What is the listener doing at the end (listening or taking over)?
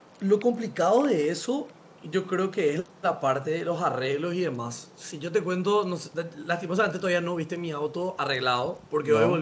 listening